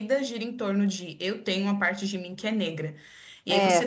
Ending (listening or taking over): listening